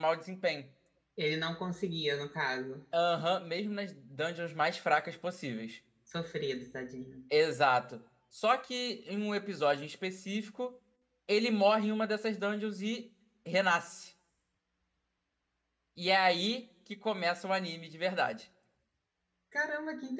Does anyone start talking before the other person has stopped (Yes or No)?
No